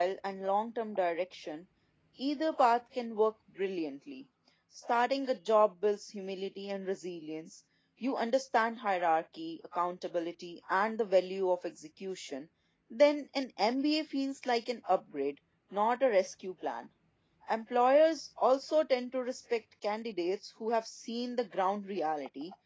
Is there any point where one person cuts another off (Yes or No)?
No